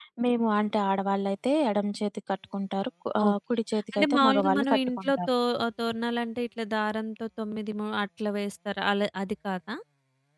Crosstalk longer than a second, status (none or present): present